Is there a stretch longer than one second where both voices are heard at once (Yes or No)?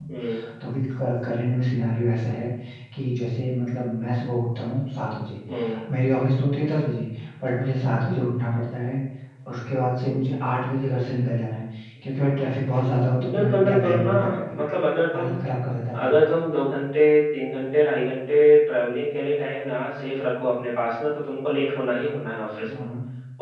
Yes